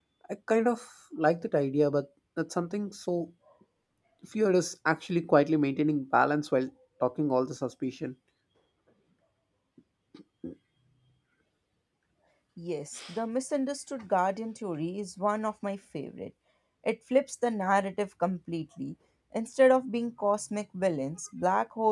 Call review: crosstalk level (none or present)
none